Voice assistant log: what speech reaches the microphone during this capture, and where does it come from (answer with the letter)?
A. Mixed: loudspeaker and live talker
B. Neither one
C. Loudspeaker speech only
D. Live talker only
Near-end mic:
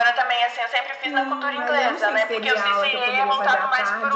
A